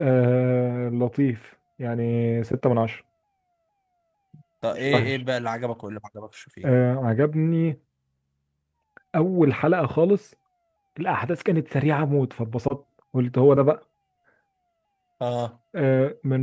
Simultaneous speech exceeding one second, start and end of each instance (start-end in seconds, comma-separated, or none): none